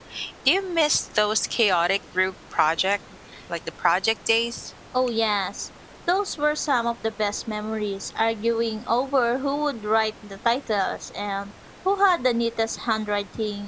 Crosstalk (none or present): none